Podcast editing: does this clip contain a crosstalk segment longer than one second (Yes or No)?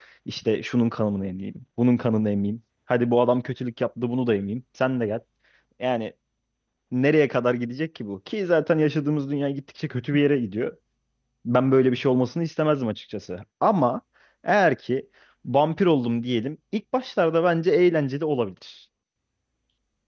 No